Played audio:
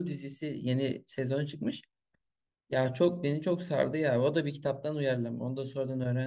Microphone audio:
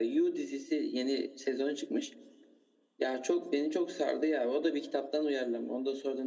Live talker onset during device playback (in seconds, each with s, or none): none